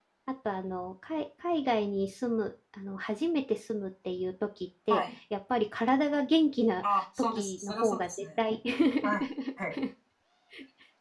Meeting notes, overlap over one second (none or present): present